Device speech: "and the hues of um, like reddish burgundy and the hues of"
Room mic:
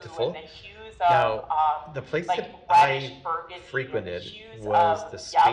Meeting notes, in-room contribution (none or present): present